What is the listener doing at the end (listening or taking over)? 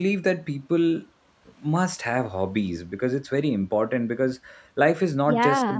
listening